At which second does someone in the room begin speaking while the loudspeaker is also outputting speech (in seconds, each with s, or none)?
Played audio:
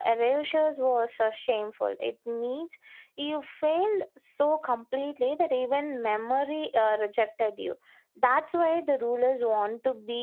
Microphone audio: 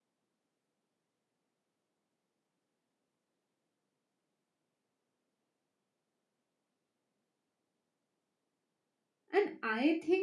9.3 s